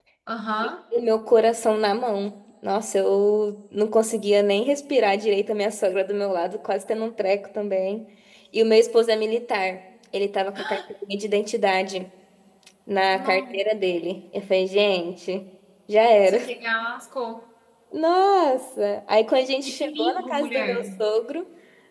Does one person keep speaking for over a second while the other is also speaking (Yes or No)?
Yes